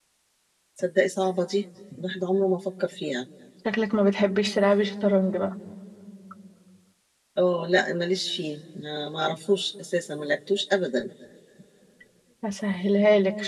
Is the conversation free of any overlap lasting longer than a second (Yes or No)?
Yes